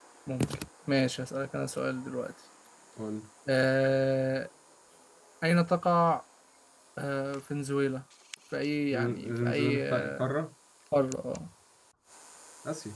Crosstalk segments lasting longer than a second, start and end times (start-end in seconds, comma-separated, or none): 8.9-10.3